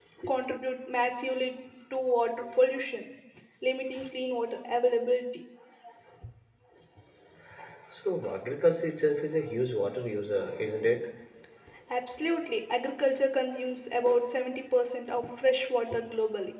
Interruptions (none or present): none